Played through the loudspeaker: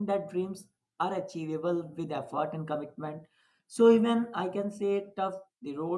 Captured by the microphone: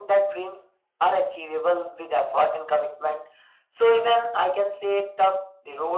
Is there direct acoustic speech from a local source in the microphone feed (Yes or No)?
No